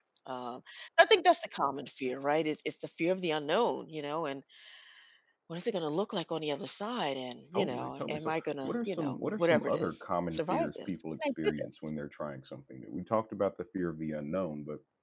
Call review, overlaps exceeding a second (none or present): present